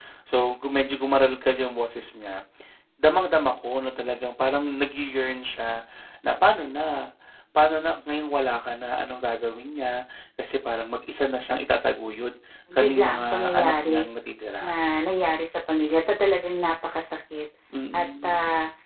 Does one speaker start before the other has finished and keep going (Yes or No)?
Yes